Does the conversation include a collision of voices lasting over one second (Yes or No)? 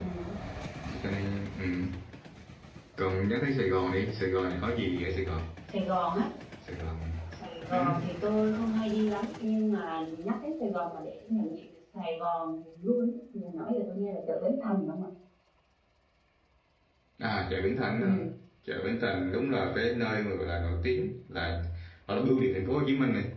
No